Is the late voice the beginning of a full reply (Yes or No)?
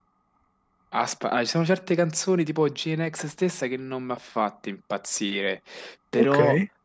No